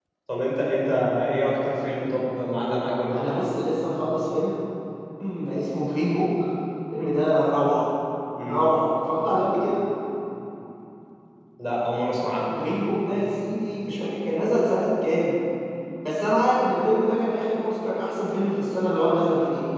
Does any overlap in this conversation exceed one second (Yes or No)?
No